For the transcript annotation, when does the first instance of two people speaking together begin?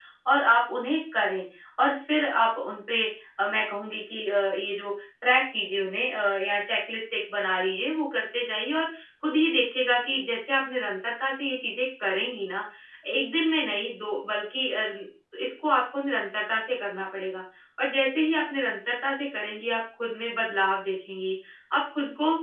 none

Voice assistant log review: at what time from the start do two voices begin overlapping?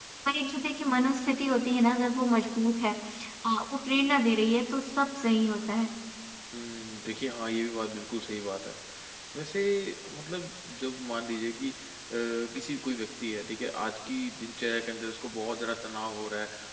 none

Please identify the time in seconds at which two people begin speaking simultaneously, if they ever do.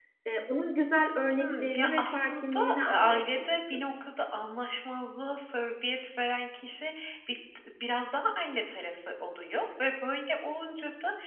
1 s

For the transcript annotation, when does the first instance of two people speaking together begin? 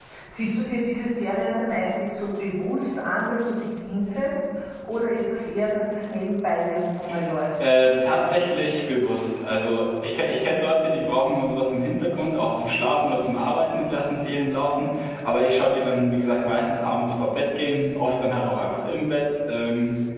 none

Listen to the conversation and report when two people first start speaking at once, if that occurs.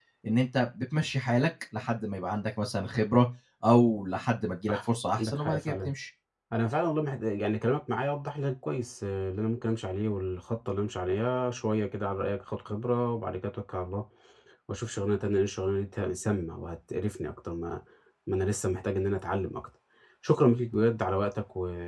5 s

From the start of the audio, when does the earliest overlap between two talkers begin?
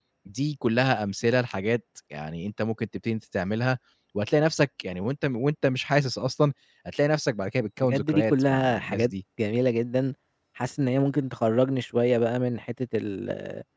8 s

